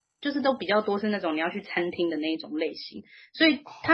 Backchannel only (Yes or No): Yes